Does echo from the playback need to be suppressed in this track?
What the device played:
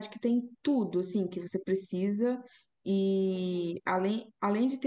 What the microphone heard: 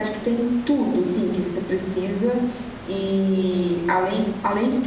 Yes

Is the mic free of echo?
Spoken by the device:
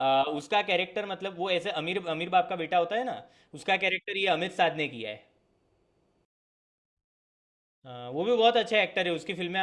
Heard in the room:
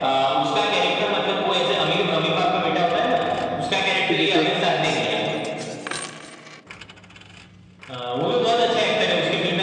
No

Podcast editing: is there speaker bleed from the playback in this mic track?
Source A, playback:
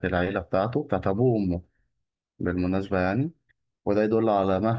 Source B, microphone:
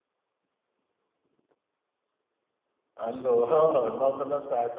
No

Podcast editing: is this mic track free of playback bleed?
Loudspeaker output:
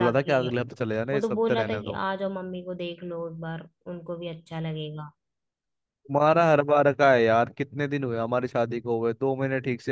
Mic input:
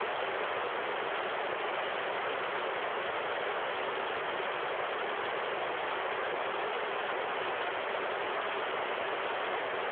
Yes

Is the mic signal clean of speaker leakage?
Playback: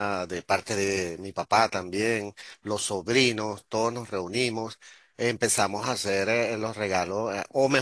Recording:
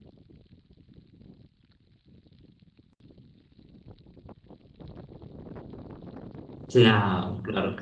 Yes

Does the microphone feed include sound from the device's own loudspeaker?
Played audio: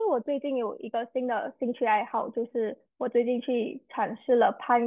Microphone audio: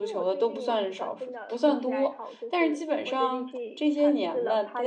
Yes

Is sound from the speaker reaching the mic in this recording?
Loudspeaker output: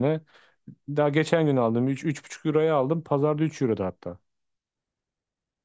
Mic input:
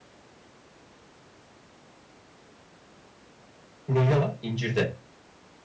No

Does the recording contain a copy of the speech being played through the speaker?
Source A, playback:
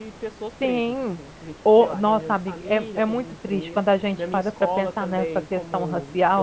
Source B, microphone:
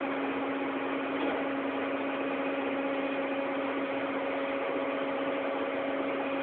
No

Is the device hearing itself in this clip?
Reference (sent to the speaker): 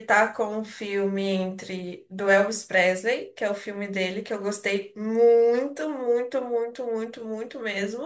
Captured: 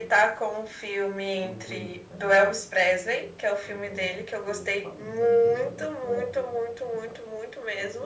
Yes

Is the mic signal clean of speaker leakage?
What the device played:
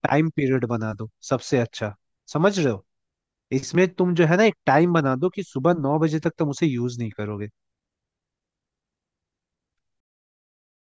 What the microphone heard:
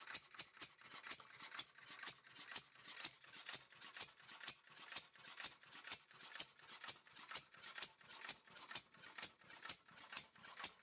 Yes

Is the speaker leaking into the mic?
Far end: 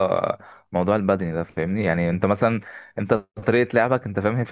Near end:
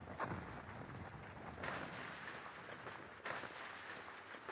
No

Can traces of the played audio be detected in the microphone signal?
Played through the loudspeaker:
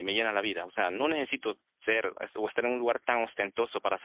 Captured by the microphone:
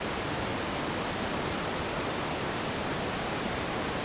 No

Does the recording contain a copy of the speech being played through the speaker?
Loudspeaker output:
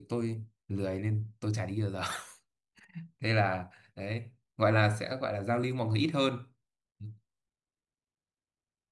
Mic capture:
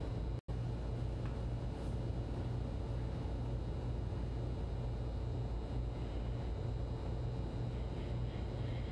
No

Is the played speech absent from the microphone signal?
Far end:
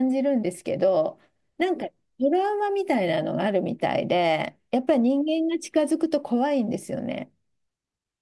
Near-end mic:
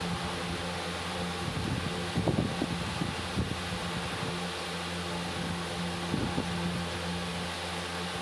Yes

